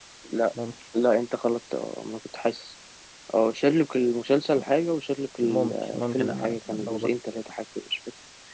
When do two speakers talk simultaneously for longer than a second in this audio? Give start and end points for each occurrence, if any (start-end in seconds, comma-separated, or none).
5.4-7.1